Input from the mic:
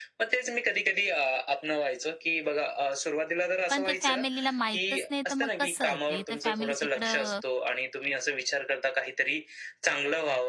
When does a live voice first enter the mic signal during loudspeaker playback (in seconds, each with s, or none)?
3.7 s